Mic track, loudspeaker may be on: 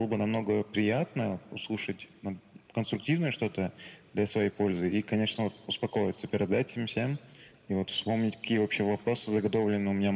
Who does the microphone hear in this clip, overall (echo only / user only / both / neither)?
echo only